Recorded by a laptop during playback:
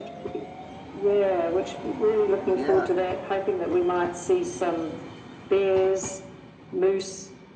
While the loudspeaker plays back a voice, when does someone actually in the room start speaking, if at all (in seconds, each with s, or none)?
2.5 s